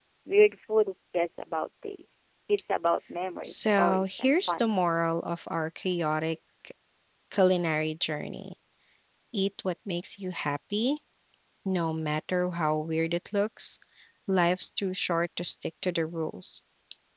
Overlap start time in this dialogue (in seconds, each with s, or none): 3.4 s